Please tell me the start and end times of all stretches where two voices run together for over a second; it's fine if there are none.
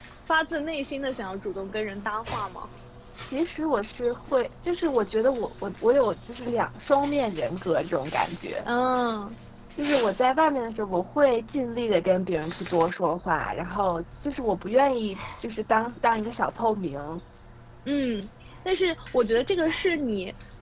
none

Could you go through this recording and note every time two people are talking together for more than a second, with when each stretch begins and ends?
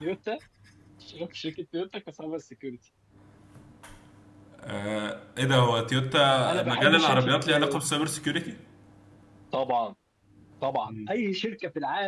6.5-7.8

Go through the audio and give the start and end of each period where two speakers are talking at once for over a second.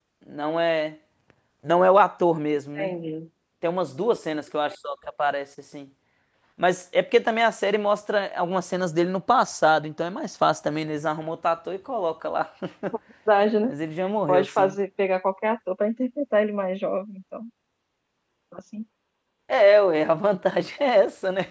none

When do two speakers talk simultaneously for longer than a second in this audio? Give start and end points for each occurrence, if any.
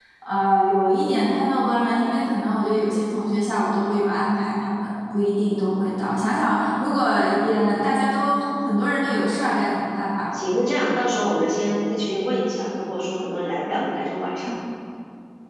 none

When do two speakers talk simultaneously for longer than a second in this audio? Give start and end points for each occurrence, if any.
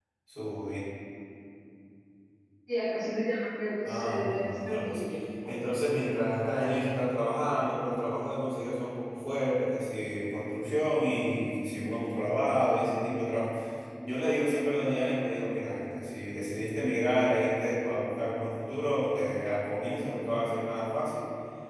3.8-5.1

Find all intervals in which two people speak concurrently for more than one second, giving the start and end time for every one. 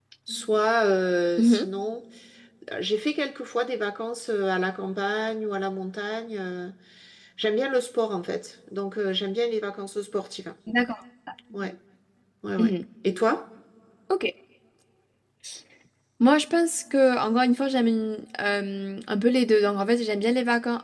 none

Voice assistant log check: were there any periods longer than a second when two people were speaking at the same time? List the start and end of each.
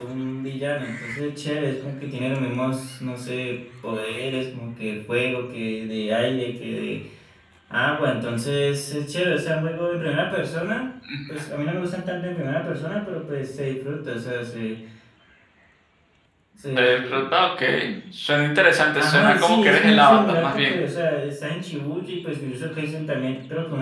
19.0-20.8

